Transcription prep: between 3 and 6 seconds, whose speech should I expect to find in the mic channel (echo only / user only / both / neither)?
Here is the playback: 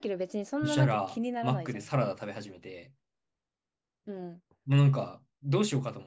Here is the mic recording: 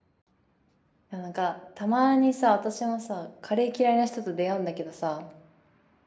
user only